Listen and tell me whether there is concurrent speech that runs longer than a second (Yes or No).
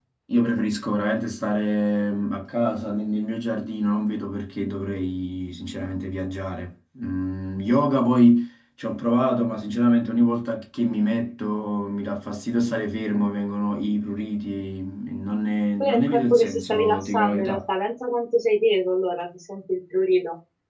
Yes